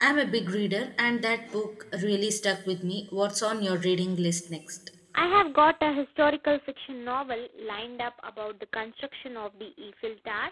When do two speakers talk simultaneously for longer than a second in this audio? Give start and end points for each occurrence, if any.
none

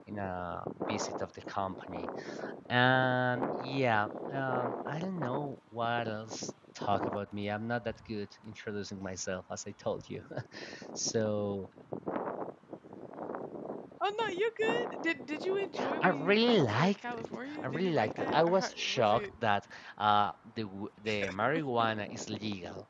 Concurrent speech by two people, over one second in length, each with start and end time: 16.0-19.3

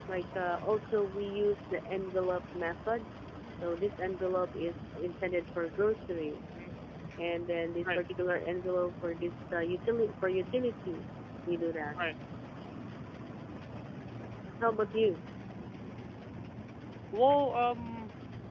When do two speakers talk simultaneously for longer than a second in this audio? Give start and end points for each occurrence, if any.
none

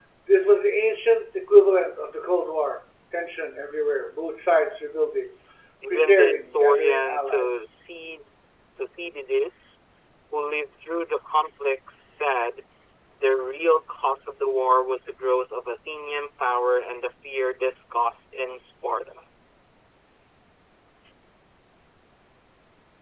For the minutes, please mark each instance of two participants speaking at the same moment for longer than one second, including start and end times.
5.9-7.7

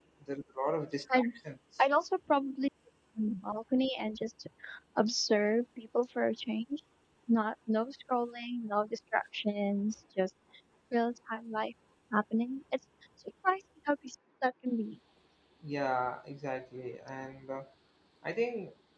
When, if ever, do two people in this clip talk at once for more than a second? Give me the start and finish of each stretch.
none

